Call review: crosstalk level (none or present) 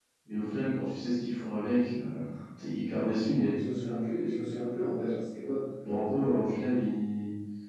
none